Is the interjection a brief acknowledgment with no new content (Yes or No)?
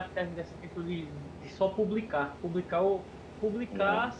Yes